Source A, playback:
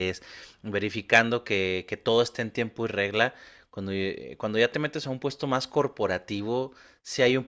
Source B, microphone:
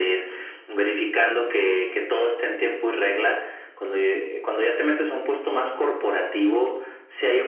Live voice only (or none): none